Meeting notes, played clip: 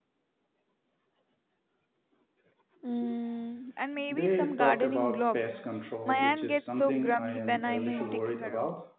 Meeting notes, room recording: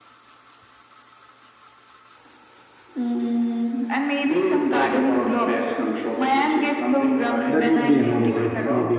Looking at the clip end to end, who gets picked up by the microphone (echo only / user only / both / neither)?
both